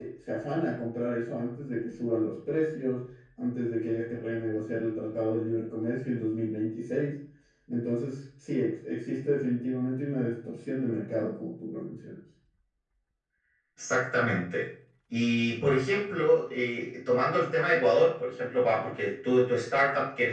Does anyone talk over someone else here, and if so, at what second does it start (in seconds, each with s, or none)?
none